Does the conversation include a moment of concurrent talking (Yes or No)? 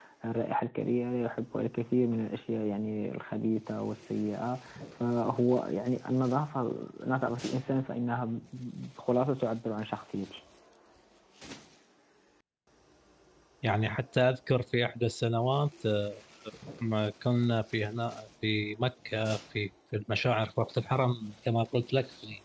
No